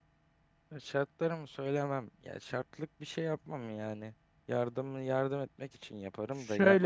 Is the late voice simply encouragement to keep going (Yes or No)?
Yes